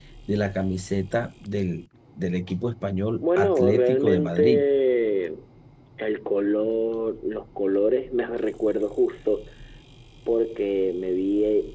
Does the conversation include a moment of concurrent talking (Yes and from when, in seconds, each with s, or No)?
Yes, from 3.2 s